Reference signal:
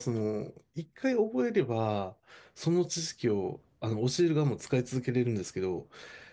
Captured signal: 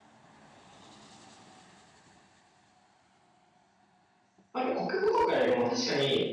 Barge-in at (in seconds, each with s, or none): 4.5 s